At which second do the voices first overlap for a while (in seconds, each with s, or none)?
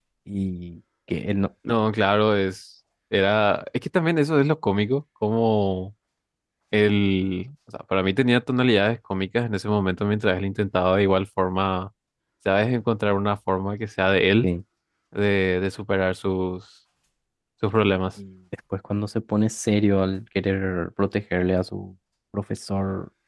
none